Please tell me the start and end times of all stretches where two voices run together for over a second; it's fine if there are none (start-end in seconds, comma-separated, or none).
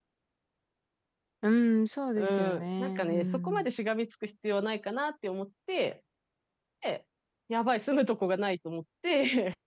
2.1-3.7